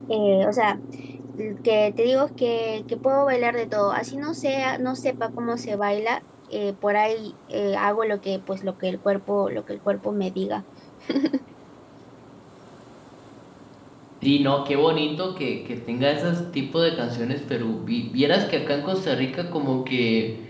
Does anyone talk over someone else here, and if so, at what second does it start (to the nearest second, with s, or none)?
none